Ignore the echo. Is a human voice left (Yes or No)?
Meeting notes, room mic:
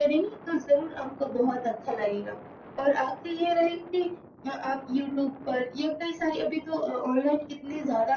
No